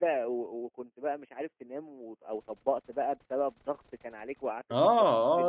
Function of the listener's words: taking over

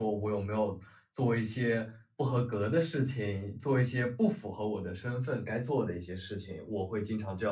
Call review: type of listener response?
taking over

